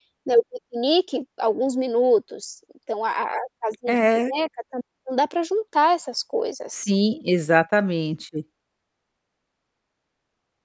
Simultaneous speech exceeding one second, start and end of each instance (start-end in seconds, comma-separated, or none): none